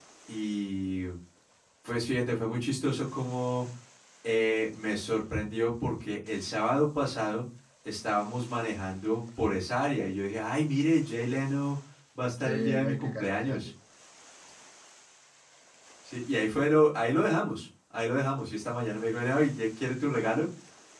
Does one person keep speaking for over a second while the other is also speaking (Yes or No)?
Yes